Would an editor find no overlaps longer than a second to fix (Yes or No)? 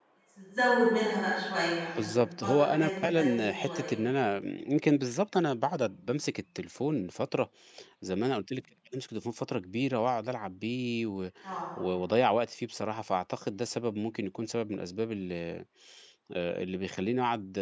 No